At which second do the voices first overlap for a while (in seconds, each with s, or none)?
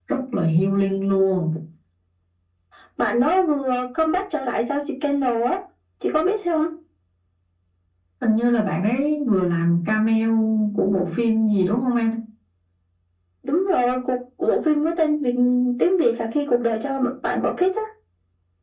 none